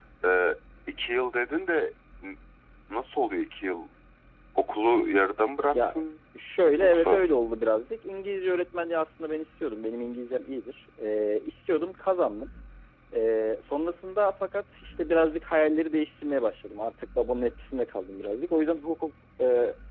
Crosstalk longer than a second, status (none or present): none